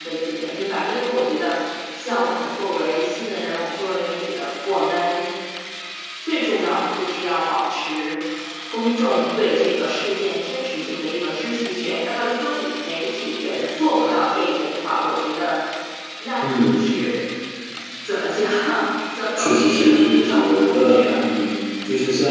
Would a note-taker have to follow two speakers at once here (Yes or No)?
Yes